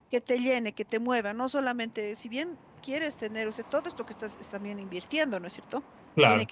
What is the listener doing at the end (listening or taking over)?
listening